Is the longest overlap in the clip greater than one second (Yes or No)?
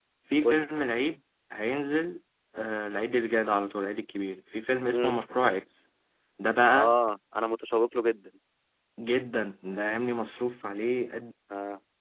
No